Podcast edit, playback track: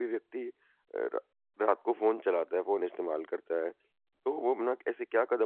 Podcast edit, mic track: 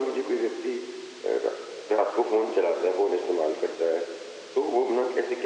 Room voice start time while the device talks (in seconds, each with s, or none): none